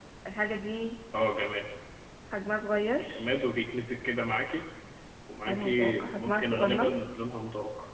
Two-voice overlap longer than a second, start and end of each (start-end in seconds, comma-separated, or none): 5.5-6.9